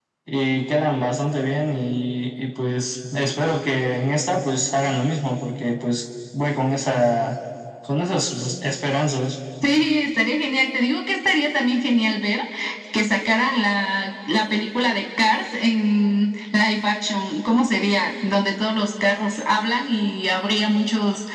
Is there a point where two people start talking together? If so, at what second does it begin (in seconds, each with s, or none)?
none